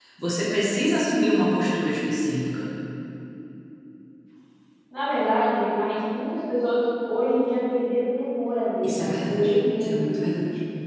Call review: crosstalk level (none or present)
present